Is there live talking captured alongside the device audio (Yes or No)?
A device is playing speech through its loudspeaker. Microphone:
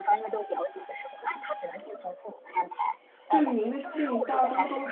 Yes